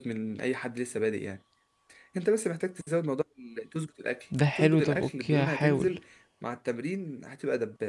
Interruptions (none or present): present